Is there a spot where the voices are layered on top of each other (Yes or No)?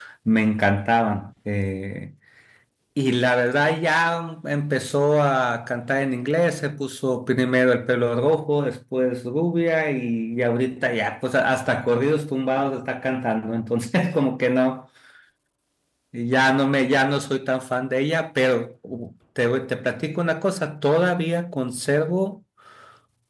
No